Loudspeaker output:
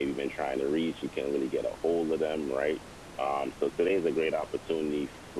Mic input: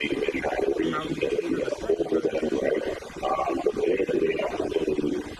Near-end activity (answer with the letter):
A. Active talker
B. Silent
A